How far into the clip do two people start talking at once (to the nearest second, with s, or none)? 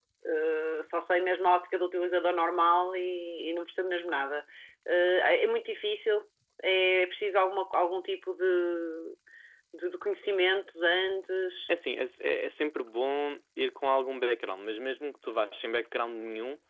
none